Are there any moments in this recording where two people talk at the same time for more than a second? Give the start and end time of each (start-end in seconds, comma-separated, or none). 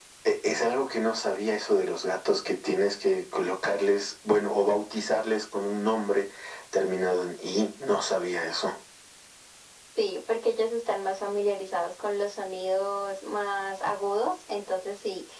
none